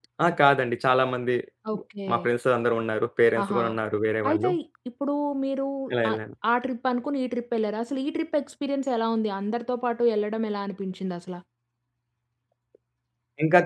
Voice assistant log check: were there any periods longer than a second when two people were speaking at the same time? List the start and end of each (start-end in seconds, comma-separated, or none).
none